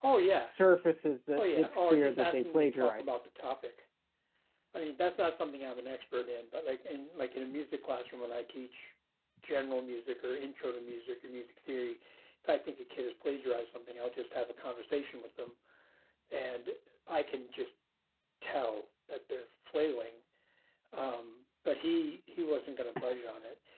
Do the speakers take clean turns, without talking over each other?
No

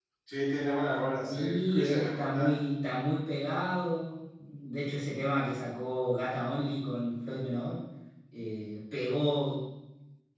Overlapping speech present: Yes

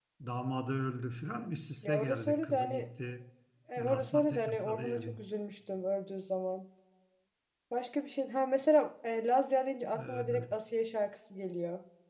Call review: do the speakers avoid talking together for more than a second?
No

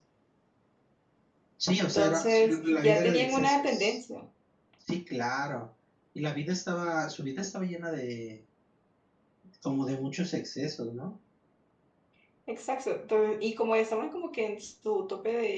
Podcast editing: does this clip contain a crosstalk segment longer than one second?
Yes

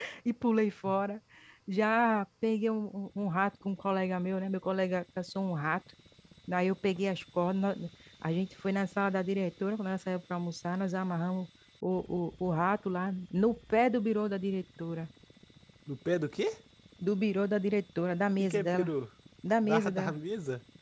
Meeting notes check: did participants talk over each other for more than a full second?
No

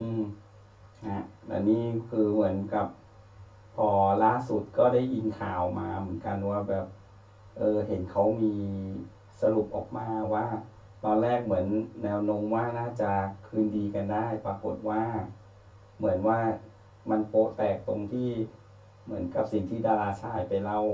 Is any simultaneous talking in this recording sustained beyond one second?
No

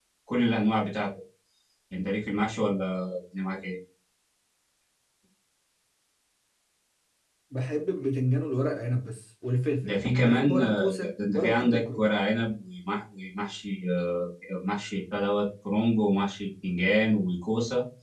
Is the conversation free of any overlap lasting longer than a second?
No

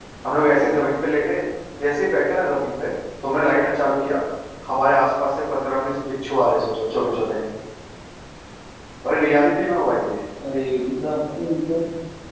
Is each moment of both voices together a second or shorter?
Yes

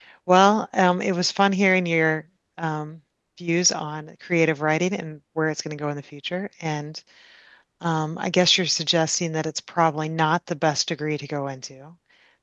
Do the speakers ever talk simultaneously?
No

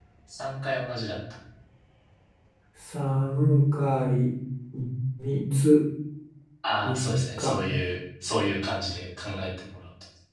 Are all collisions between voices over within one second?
Yes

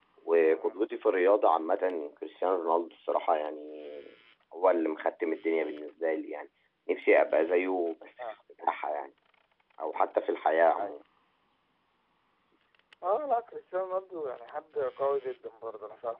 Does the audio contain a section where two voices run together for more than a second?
No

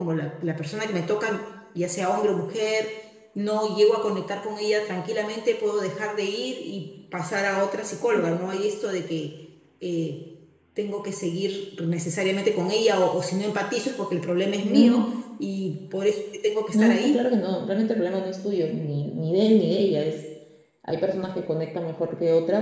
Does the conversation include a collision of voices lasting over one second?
No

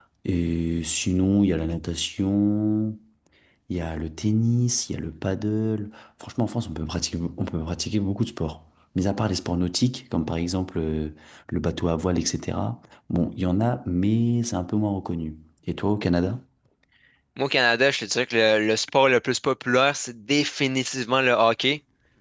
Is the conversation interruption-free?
Yes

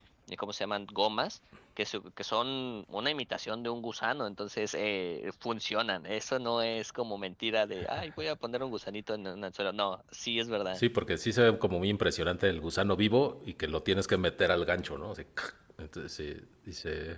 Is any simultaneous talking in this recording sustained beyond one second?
No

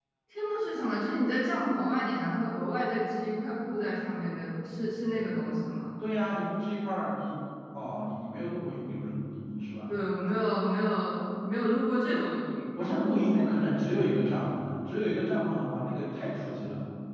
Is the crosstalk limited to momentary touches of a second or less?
Yes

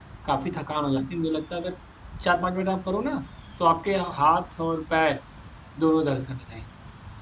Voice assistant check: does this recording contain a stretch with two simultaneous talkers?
No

